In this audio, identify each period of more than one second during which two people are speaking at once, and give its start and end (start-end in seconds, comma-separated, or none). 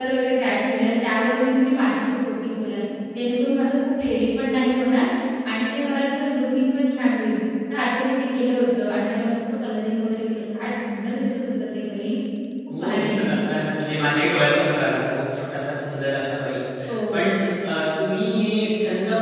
none